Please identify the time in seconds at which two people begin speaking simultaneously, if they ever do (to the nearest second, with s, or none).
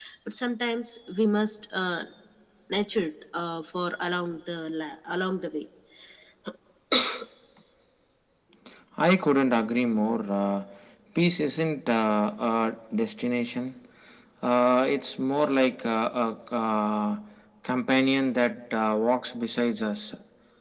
none